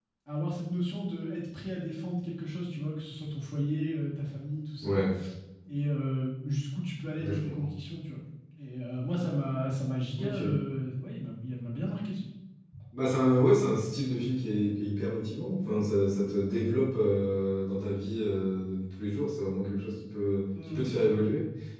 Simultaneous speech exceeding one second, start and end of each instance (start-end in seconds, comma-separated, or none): none